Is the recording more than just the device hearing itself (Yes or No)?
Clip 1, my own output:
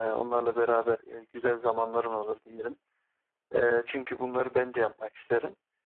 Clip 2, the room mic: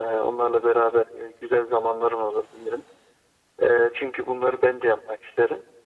No